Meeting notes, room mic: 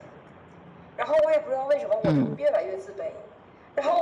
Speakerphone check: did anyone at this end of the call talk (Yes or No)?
Yes